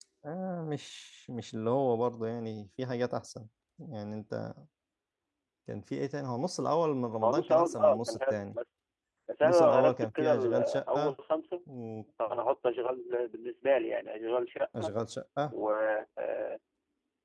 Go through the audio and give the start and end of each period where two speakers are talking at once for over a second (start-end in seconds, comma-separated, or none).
7.2-8.6, 9.4-11.1